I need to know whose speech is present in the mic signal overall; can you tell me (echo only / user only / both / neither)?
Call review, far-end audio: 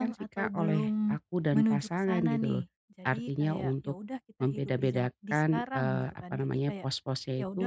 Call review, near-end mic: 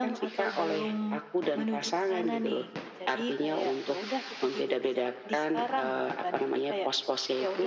echo only